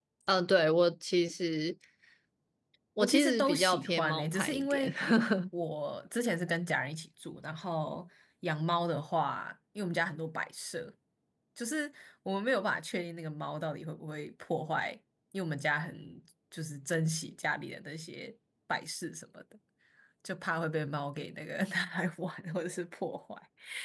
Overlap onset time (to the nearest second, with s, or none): 3 s